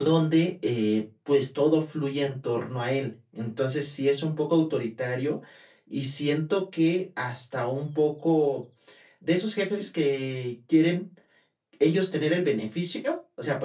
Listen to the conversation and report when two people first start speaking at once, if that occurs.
none

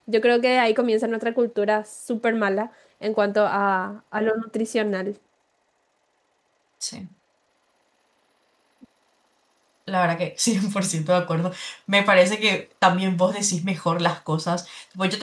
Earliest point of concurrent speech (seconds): none

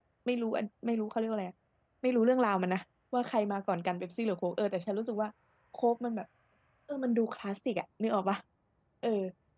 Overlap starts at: none

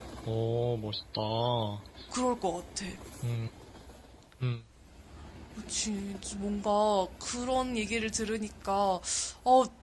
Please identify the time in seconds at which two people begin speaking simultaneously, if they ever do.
none

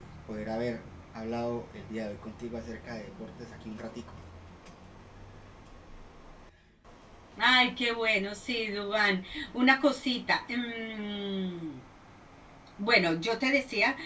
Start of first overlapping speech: none

